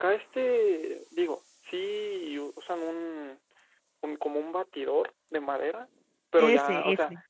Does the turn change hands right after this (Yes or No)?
No